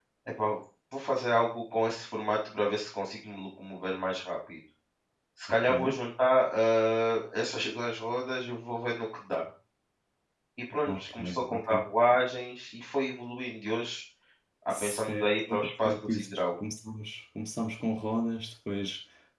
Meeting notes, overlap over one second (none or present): present